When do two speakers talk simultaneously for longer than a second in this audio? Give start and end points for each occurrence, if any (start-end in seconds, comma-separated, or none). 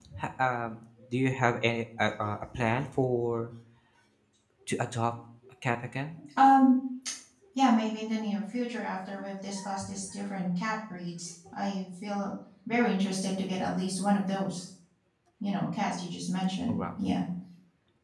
none